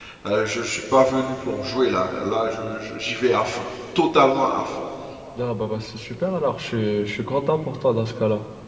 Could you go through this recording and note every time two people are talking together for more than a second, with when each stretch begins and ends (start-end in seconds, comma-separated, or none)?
none